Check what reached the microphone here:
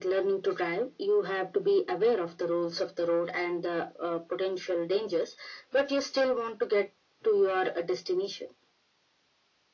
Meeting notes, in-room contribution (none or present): none